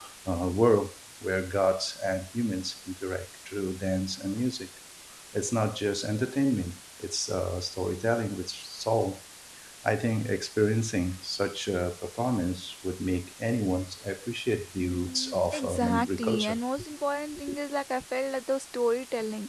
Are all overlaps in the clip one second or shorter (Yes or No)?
No